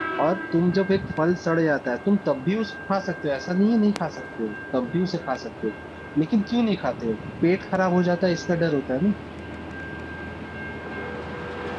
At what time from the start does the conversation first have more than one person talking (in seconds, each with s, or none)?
none